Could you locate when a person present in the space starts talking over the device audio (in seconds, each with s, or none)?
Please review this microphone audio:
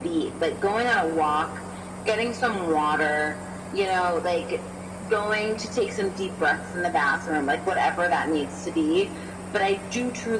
none